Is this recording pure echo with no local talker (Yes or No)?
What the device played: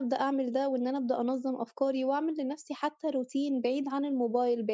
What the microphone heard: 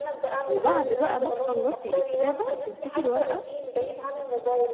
No